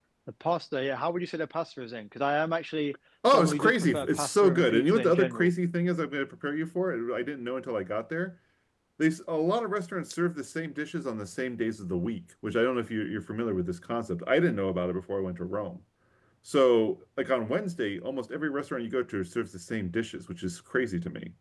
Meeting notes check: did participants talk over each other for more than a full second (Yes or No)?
Yes